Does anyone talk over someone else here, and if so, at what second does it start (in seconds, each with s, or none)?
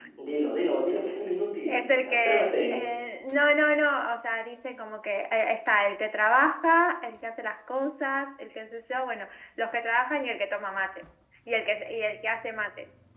1.7 s